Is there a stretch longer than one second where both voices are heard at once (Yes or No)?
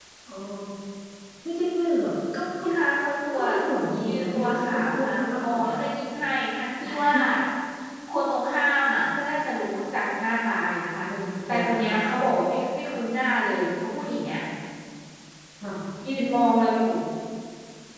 Yes